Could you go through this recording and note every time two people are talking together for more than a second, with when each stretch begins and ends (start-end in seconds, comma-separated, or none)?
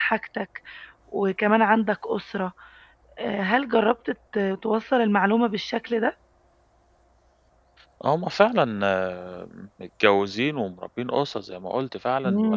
none